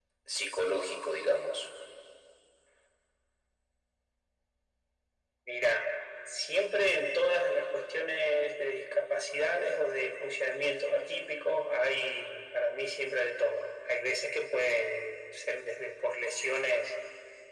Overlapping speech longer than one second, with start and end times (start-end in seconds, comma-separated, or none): none